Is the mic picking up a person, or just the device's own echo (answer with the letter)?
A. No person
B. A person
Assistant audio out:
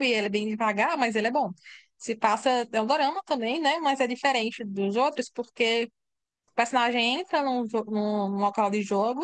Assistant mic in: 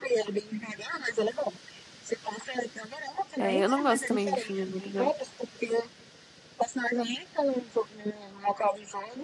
B